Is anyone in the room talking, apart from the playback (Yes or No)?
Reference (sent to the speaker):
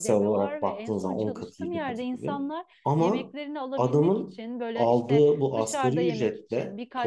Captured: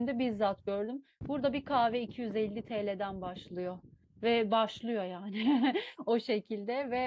Yes